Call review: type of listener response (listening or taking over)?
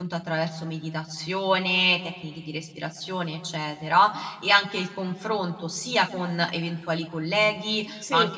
listening